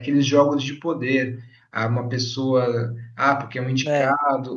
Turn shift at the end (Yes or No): No